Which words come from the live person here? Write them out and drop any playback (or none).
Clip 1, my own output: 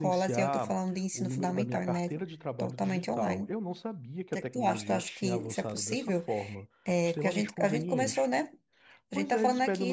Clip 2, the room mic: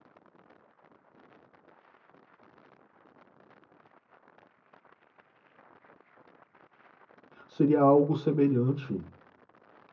seria algo semelhante